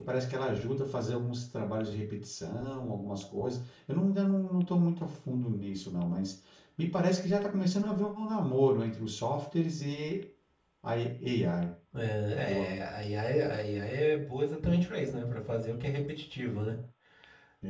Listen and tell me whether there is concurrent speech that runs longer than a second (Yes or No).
No